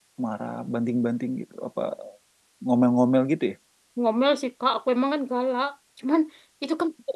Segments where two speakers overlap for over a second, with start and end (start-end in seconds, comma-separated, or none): none